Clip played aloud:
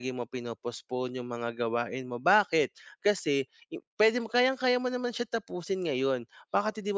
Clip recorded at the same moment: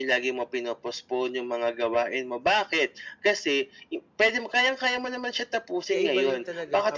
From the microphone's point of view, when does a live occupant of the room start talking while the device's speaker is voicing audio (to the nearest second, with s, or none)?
6 s